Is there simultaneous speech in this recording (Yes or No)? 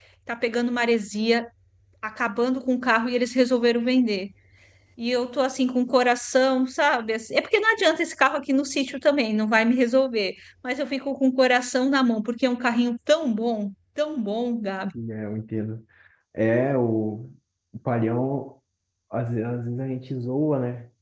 No